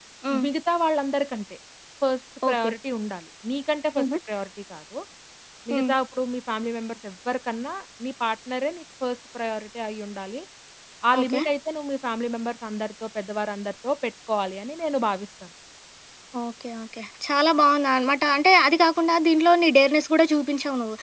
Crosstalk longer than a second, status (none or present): none